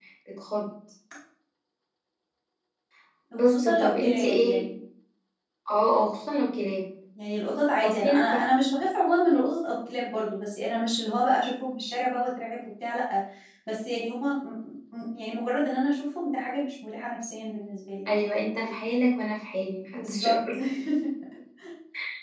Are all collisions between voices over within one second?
No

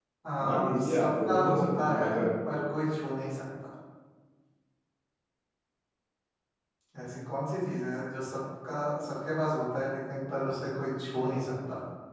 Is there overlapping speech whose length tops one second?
Yes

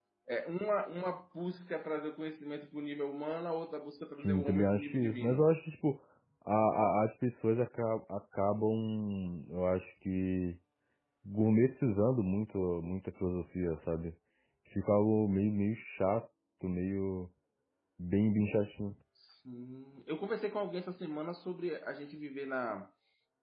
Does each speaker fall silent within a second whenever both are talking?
No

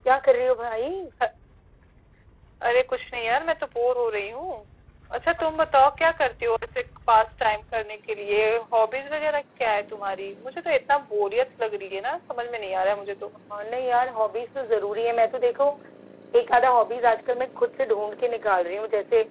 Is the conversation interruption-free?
Yes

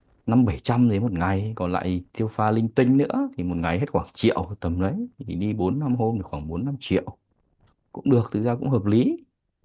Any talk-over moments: No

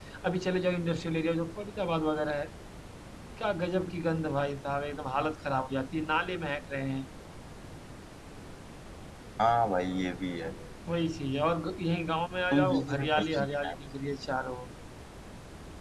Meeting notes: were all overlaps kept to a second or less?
No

